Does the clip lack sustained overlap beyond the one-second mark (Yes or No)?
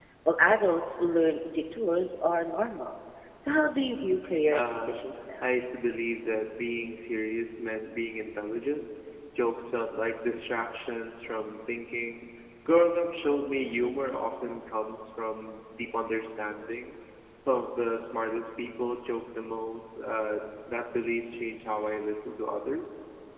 Yes